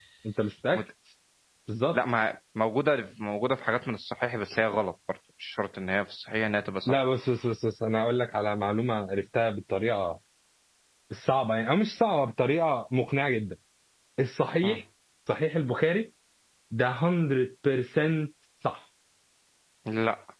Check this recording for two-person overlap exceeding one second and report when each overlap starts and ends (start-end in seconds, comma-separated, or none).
none